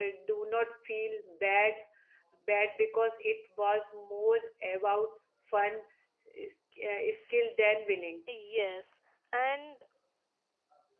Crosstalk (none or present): none